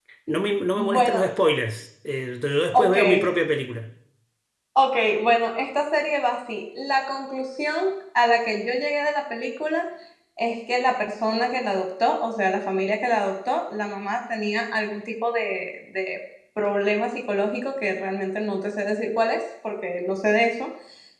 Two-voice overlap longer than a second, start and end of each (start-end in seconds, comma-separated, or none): none